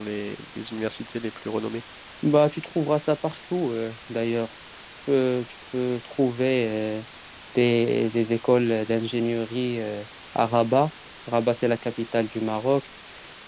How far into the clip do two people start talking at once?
none

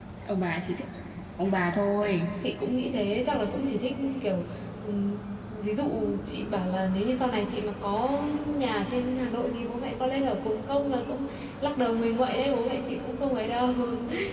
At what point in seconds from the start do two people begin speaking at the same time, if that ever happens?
none

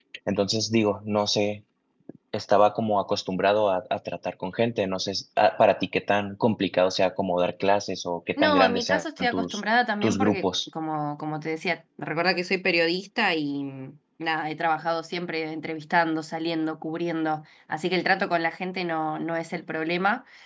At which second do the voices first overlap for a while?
8 s

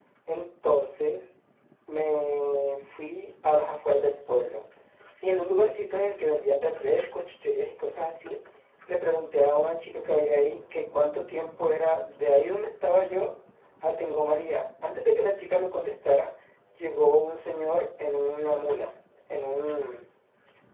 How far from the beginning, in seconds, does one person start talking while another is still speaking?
none

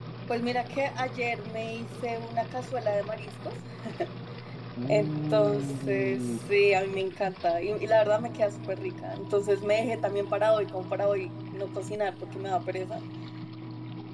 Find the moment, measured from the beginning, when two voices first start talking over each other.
5 s

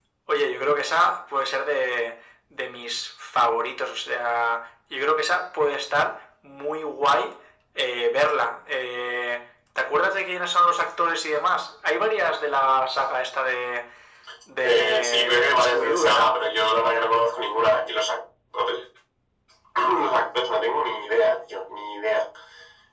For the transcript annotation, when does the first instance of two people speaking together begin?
15 s

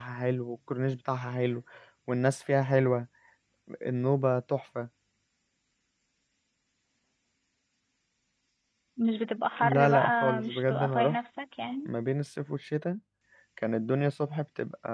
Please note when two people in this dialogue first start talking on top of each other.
10 s

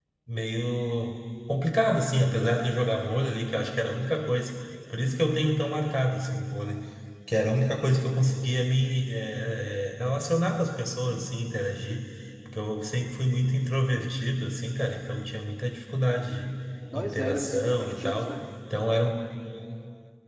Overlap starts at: 17 s

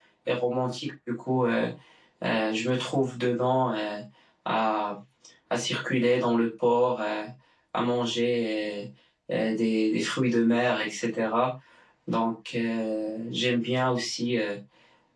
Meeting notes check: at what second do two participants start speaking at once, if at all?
none

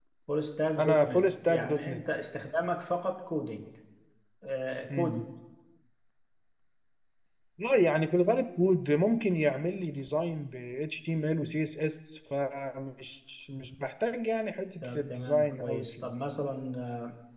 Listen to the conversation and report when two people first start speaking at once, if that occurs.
1 s

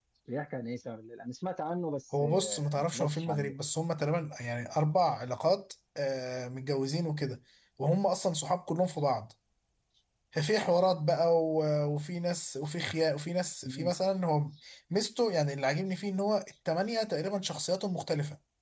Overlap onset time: 2 s

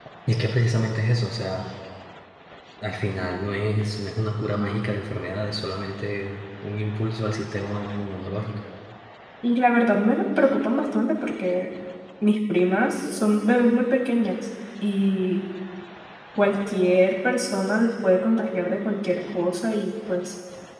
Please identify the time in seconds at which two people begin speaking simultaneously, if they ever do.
none

